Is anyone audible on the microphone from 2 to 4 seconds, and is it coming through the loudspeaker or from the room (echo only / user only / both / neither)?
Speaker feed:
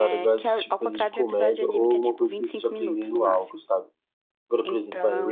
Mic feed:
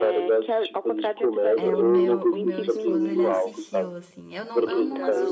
both